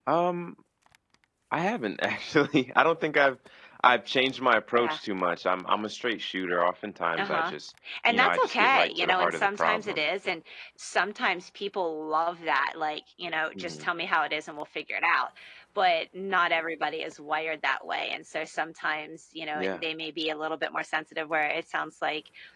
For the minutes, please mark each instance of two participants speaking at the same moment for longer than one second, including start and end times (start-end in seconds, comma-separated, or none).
8.1-10.0